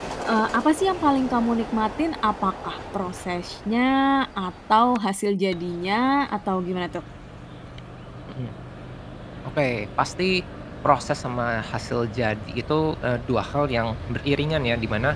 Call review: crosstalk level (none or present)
none